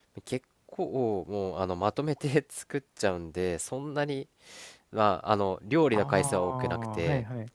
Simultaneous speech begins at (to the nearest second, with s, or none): 6 s